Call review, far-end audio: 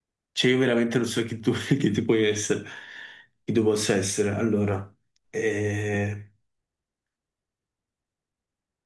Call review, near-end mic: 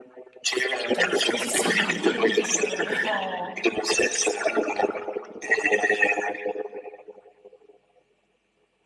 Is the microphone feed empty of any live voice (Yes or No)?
No